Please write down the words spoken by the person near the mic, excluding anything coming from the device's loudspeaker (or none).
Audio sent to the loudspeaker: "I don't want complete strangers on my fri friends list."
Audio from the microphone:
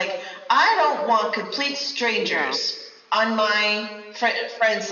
yeah.